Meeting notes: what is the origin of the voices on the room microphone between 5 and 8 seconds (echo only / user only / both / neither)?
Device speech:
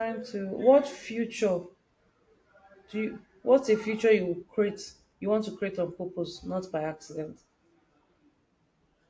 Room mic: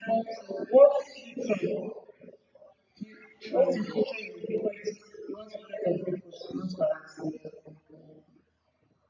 echo only